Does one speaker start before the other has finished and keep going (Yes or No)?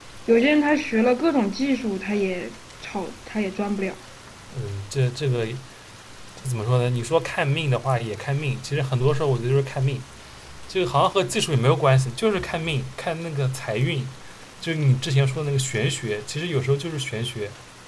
No